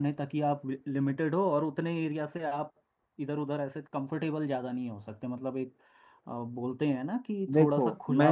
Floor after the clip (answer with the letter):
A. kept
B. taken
B